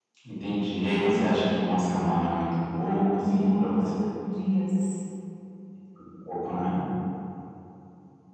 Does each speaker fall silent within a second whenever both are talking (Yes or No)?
No